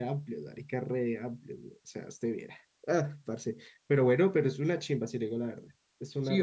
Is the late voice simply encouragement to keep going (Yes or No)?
No